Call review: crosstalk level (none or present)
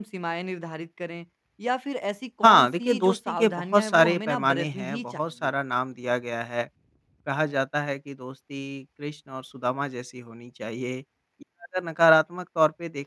present